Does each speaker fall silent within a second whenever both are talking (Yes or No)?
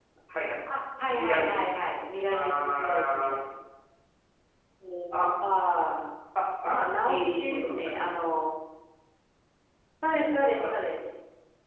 No